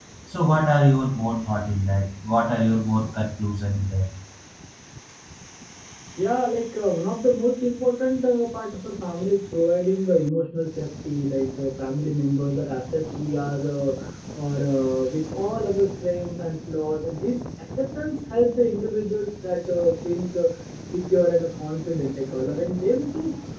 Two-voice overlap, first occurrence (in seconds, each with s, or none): none